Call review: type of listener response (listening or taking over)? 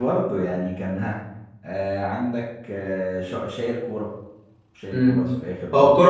taking over